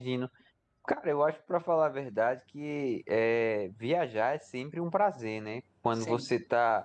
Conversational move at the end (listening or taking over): listening